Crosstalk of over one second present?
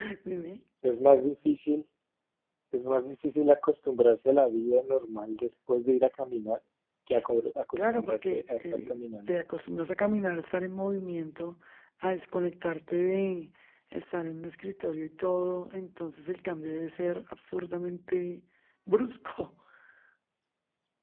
Yes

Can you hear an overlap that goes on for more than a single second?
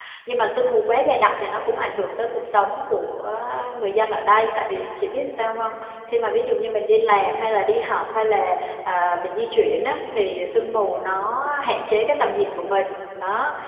No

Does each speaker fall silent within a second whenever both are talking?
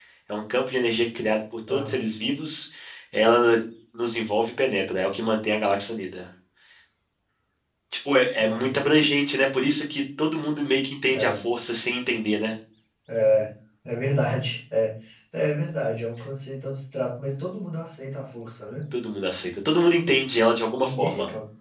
Yes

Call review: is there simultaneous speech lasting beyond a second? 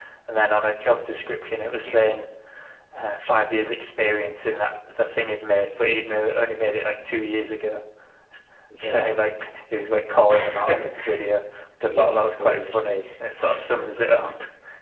Yes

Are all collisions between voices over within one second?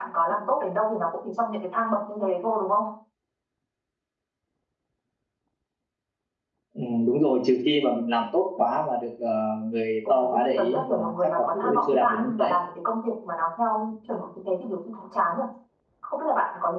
No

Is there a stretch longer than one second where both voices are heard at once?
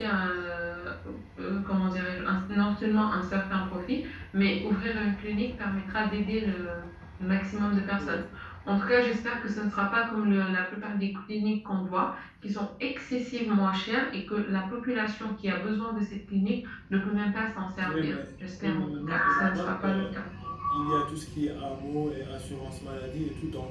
Yes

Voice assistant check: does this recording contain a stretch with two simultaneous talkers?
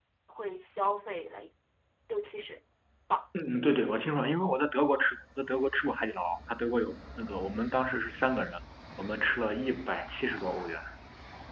No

